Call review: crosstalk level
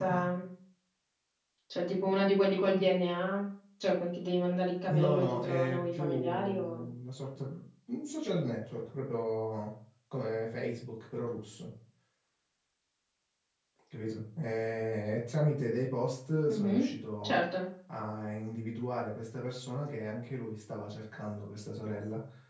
present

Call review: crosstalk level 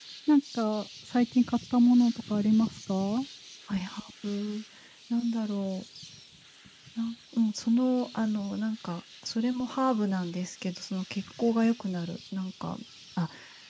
none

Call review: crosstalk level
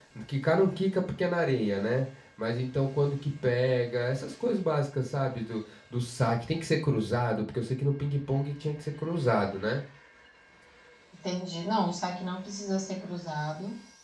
none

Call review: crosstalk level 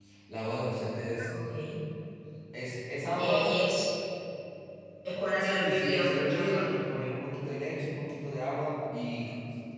present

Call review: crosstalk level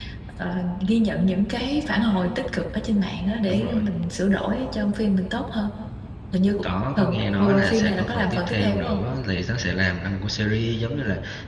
present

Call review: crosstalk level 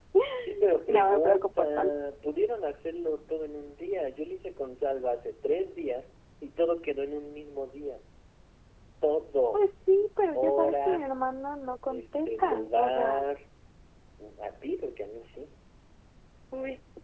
present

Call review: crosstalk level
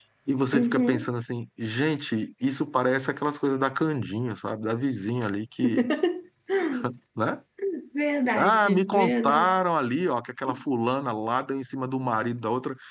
present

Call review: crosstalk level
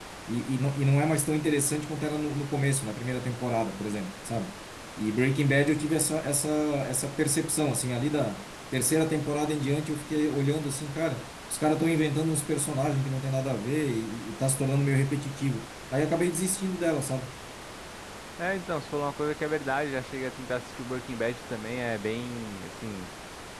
none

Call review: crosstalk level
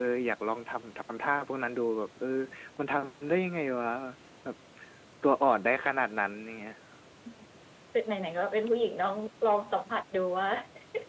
none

